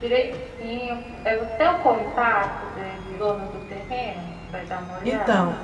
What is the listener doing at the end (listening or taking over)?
taking over